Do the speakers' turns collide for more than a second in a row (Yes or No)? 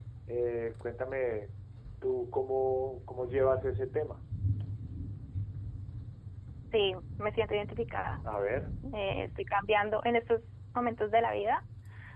No